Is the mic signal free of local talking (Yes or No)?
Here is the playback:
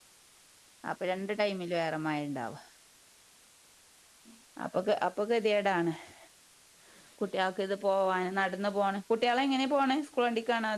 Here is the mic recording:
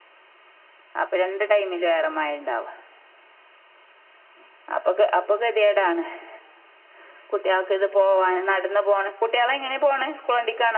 Yes